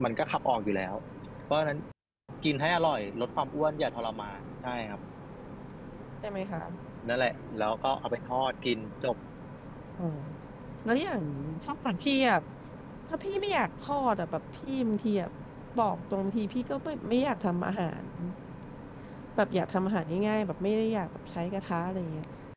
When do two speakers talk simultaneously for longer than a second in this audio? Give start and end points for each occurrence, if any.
none

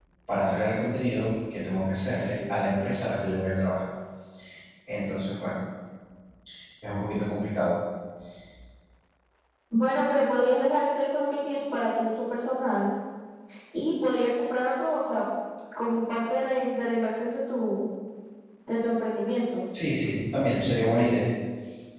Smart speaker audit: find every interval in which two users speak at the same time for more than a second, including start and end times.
none

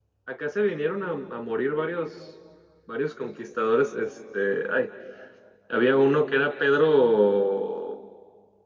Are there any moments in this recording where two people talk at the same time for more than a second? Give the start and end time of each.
none

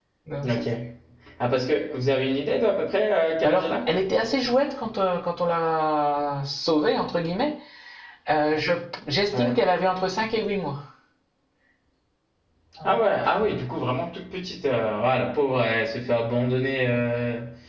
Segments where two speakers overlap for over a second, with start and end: none

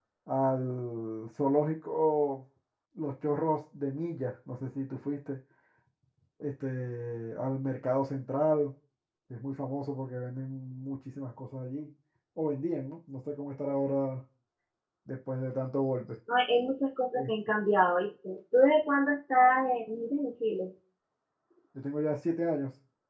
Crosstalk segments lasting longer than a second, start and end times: none

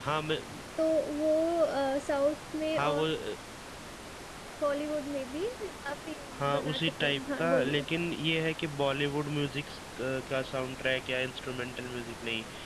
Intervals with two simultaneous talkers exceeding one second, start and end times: 6.5-7.8

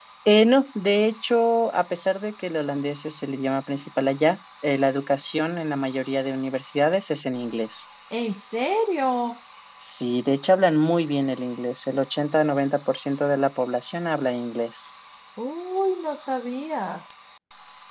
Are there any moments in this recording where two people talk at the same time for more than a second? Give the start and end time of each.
none

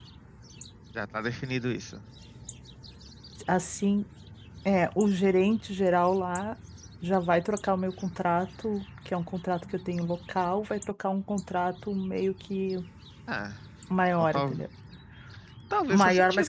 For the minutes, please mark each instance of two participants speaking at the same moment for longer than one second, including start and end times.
none

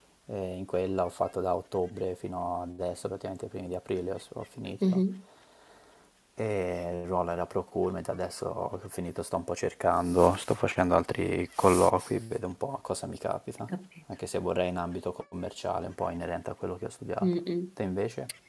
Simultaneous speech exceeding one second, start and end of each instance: none

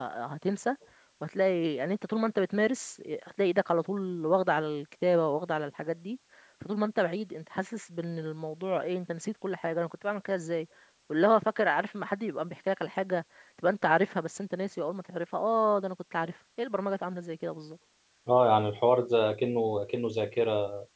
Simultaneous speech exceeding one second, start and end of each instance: none

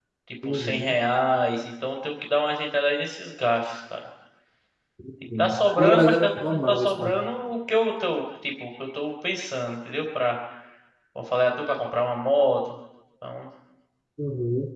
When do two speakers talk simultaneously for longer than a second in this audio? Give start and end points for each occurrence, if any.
5.4-7.2

